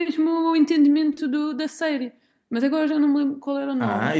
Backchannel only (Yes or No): No